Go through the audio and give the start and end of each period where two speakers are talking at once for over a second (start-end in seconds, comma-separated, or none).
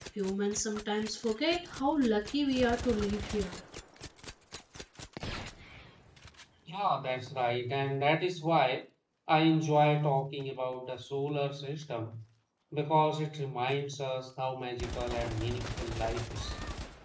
none